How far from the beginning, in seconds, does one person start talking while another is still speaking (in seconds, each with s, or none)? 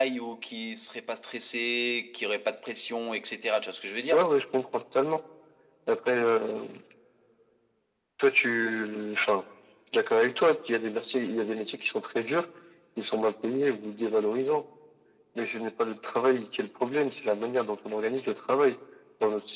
none